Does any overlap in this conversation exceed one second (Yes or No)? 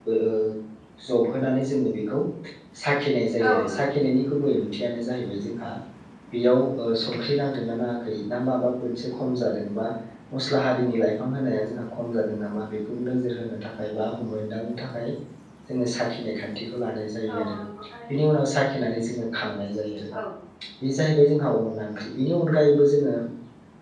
No